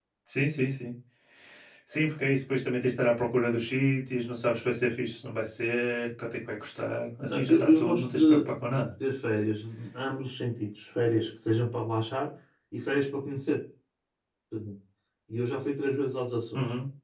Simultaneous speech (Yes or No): Yes